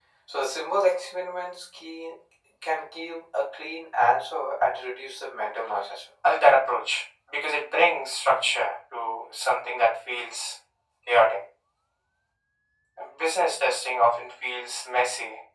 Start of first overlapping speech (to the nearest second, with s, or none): none